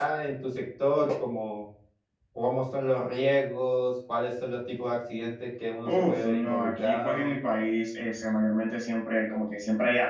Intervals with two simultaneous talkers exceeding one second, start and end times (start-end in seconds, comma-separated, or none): 5.8-7.4